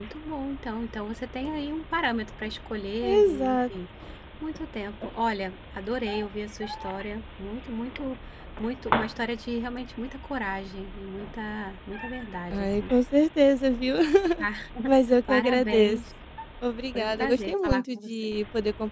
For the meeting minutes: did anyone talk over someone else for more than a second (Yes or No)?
Yes